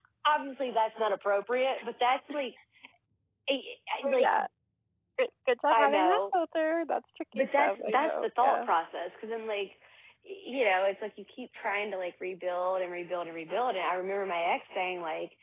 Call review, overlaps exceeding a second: present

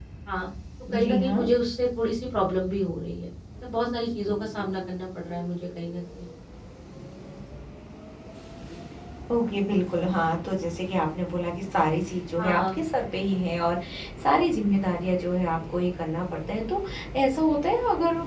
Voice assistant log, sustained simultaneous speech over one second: none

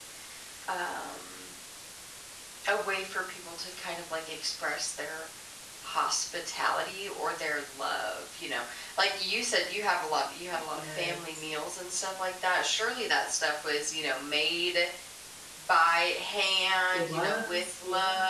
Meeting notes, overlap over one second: present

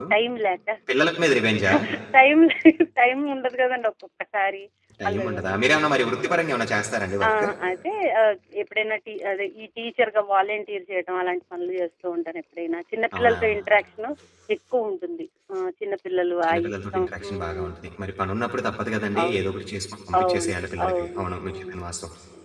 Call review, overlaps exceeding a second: present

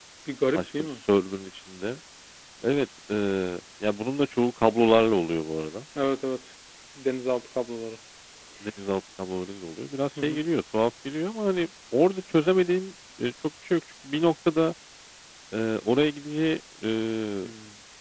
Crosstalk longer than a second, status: none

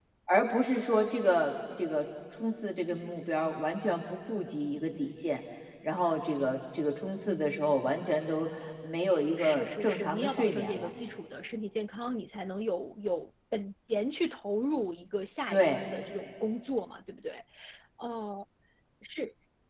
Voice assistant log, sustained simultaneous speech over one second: present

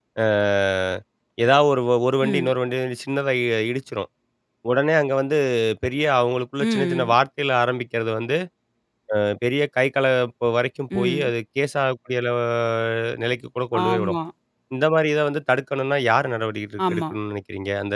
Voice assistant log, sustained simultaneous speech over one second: none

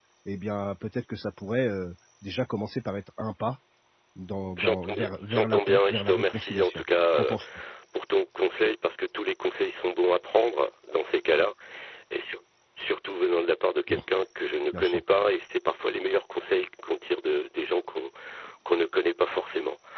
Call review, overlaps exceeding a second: present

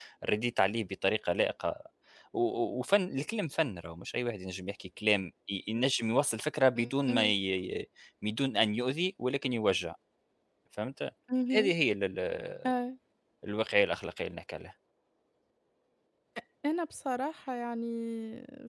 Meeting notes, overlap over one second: none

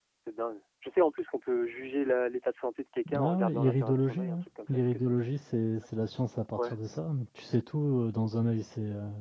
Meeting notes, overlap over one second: present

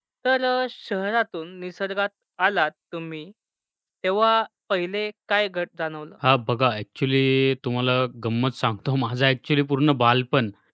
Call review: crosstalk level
none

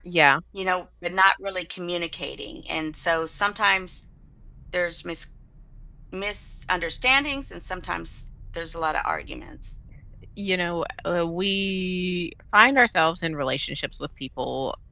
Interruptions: none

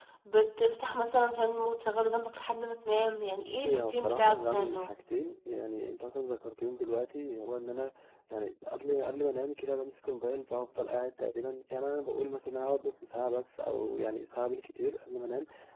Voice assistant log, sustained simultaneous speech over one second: present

